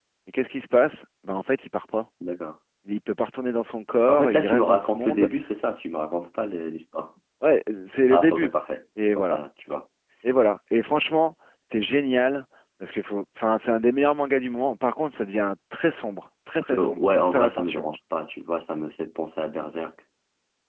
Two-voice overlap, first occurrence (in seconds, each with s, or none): 4.1 s